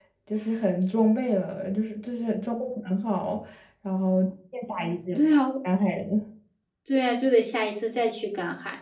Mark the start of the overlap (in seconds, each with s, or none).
none